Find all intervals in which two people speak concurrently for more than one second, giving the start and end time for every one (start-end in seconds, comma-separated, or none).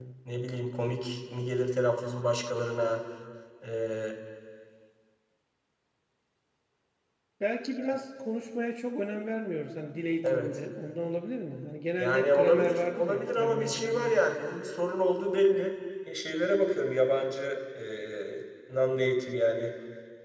12.0-14.1